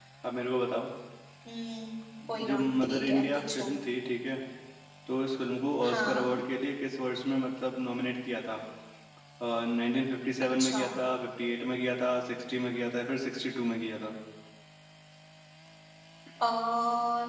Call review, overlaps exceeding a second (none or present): present